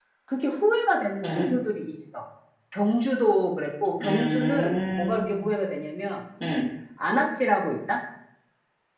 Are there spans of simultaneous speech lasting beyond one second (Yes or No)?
Yes